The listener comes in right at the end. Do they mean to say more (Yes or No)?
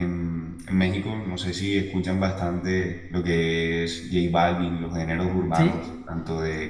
No